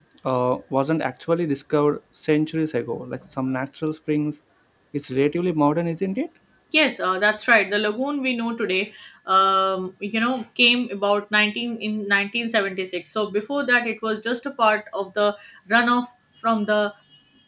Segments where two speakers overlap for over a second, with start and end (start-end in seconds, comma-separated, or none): none